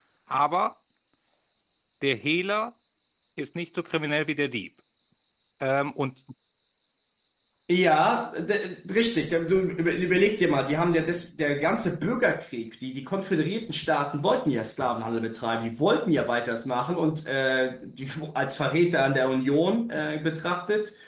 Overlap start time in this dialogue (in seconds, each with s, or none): none